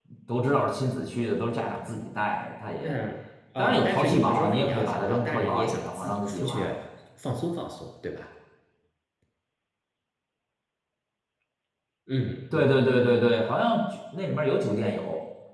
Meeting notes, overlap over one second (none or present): present